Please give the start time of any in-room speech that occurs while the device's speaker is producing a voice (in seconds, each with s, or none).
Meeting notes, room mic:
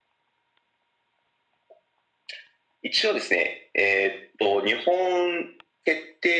none